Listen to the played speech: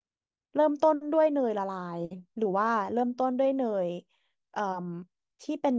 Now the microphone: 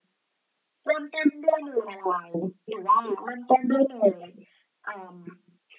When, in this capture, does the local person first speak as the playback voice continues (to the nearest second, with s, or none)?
none